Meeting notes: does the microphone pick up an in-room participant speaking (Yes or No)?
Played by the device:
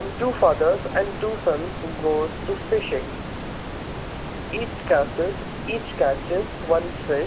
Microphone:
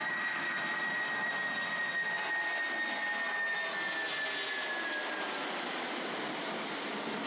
No